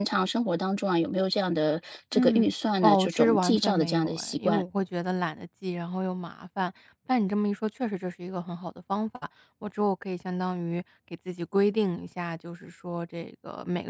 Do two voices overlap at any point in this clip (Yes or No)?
Yes